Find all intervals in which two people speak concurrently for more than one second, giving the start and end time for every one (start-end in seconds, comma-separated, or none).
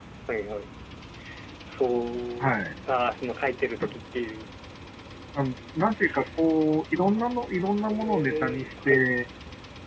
7.9-9.1